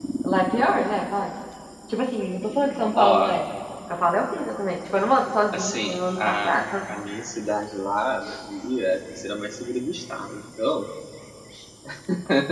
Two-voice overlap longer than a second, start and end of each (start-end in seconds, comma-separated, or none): 5.5-7.0